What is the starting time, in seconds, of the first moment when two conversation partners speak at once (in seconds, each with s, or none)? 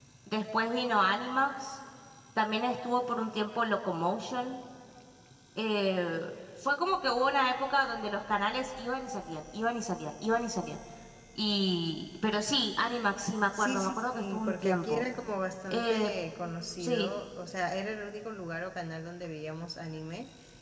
13.6 s